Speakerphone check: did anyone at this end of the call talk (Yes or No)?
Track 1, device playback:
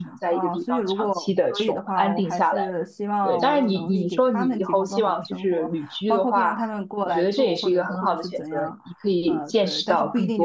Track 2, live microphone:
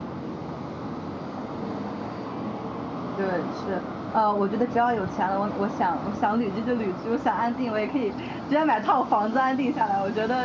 Yes